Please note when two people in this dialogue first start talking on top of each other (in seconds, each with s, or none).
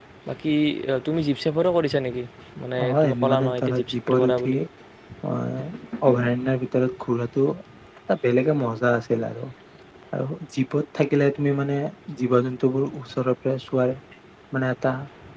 2.9 s